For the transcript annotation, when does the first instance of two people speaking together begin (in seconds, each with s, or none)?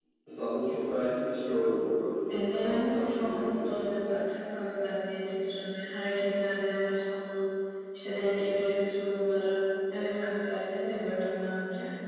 2.3 s